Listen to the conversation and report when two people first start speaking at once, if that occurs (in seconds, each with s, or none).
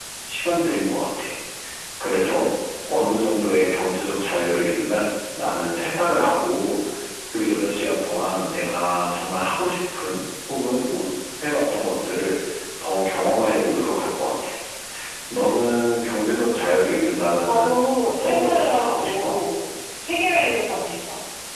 17.5 s